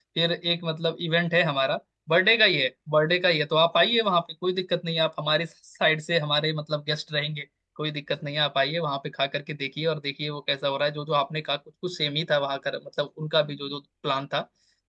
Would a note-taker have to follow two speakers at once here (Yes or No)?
No